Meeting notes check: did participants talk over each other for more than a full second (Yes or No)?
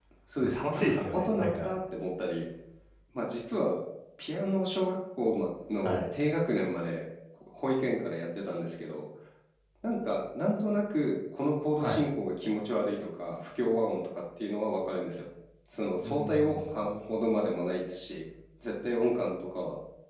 Yes